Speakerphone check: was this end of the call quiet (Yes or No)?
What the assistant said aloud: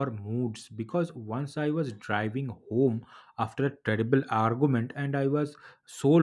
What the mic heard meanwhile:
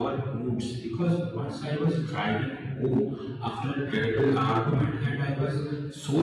Yes